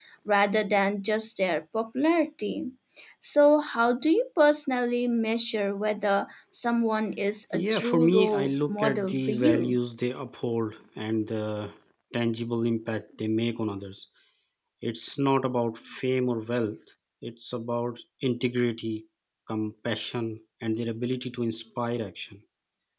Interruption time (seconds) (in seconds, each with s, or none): 7.5 s